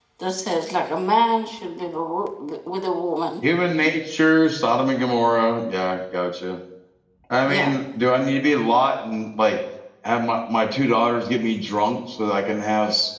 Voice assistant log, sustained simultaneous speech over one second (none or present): none